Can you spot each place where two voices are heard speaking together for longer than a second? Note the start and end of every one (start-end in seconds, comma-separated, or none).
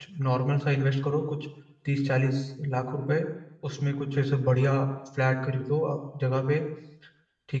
none